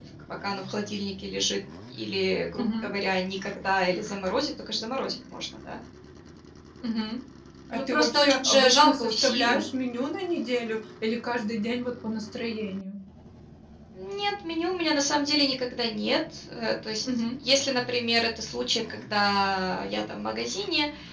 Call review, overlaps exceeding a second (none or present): present